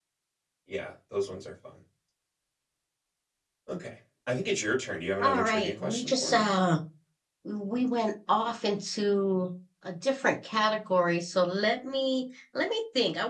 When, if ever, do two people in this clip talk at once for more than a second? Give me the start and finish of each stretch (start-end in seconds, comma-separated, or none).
5.2-6.5